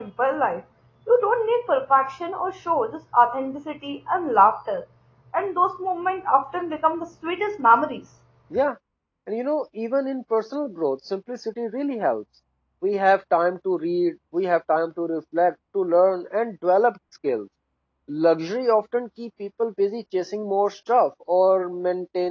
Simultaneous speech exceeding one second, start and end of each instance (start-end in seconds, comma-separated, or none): none